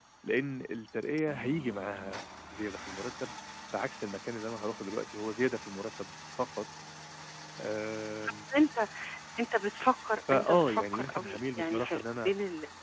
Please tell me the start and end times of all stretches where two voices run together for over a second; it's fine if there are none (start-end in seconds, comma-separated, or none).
10.3-12.3